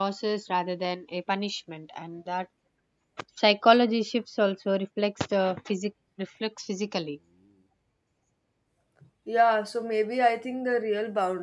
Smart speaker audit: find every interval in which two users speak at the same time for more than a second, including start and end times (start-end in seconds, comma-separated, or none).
none